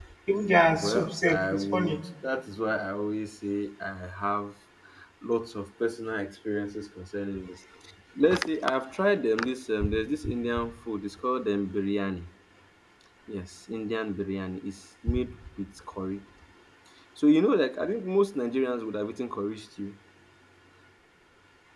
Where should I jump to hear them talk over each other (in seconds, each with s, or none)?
0.7 s